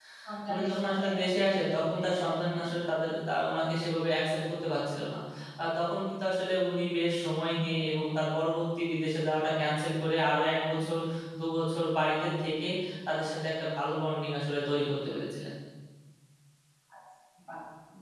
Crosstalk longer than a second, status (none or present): present